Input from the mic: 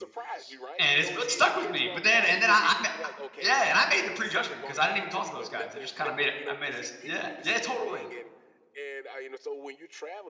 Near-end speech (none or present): present